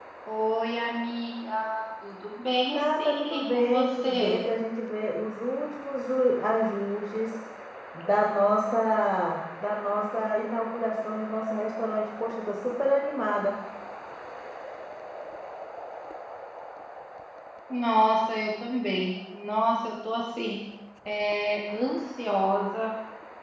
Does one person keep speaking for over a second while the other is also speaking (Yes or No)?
Yes